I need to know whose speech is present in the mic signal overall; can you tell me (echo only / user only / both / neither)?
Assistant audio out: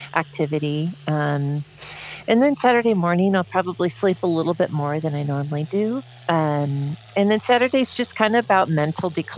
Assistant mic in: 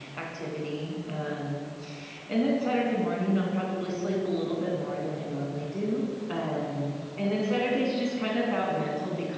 echo only